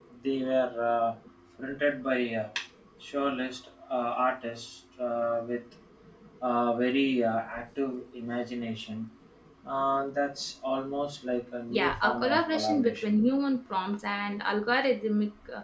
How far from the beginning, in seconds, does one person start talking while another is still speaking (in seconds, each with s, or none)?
11.7 s